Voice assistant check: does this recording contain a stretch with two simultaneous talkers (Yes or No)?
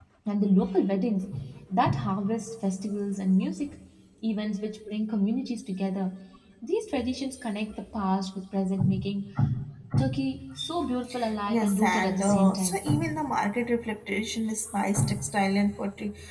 Yes